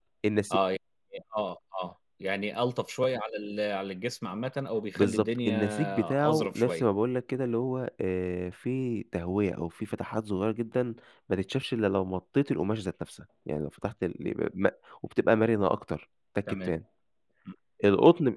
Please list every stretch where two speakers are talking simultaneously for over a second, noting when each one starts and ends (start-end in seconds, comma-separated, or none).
5.0-6.8